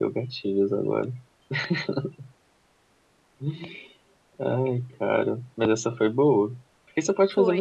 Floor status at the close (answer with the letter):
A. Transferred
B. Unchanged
B